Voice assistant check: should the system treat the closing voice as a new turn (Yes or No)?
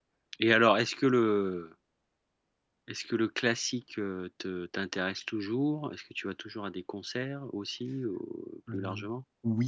Yes